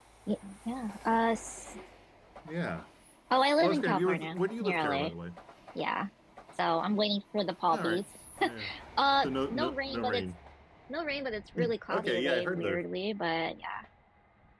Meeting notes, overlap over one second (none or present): present